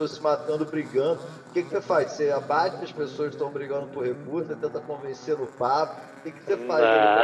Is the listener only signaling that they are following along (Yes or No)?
Yes